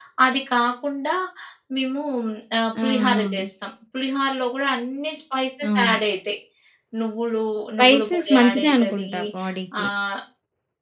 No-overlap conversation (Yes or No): No